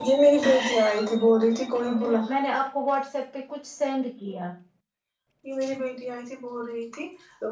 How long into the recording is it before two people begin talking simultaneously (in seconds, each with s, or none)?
none